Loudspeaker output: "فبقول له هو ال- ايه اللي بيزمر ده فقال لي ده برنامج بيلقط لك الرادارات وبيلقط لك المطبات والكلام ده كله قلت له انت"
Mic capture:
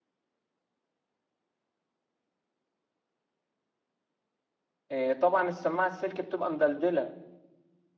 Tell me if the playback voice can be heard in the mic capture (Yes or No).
No